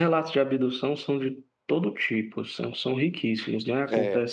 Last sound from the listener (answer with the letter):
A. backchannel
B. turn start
A